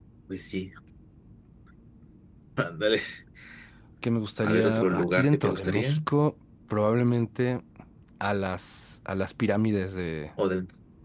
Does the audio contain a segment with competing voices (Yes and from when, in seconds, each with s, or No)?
Yes, from 4.4 s